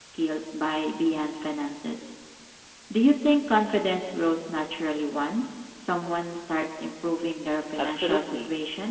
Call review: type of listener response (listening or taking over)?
taking over